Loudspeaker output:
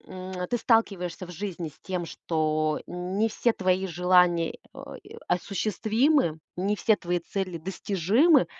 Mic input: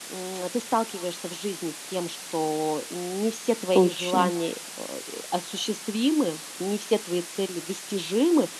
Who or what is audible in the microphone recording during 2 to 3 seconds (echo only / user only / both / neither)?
echo only